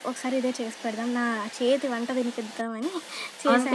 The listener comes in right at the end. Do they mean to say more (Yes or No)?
Yes